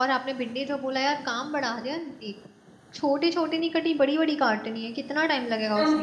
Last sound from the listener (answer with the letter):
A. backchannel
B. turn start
B